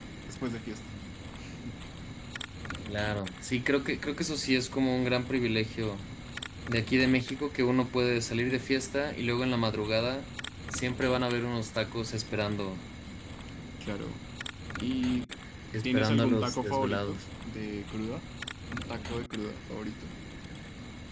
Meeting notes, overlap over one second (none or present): present